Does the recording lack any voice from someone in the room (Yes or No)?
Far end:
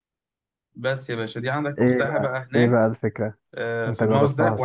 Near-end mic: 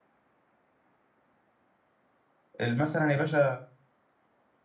No